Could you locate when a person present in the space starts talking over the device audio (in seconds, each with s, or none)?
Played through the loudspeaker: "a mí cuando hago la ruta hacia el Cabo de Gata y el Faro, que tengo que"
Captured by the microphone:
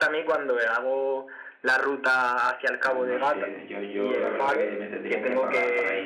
2.8 s